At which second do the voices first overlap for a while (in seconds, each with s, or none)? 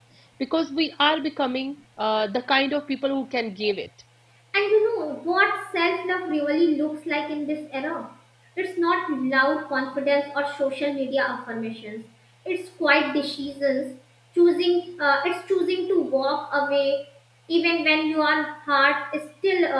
none